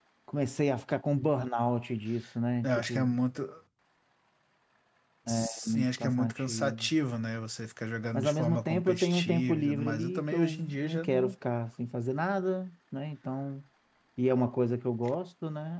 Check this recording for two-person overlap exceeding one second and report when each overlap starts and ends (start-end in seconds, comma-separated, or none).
5.4-6.9, 8.1-11.3